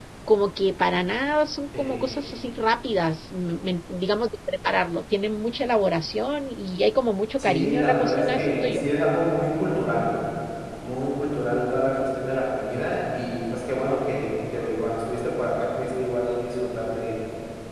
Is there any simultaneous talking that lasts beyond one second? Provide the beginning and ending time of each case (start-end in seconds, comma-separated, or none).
7.4-8.8